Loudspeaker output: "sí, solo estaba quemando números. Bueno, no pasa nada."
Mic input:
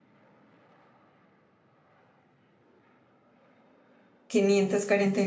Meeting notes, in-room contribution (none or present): present